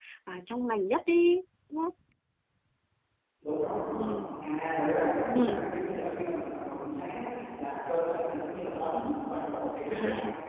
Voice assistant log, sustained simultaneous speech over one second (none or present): none